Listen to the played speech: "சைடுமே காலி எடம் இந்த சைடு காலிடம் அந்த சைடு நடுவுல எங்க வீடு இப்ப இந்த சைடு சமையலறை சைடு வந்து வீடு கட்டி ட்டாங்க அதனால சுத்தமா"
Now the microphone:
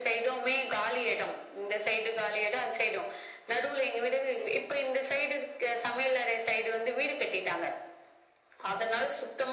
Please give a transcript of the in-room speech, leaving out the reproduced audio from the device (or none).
none